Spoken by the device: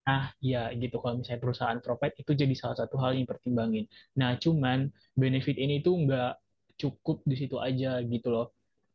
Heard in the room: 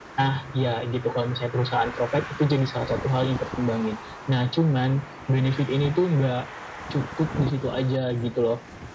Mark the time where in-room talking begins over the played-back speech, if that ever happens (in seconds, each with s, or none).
none